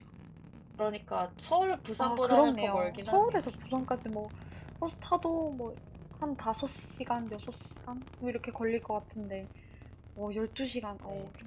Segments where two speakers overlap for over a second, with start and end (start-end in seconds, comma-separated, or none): 2.0-3.4